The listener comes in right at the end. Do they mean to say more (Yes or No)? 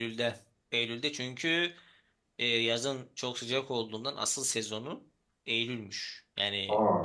No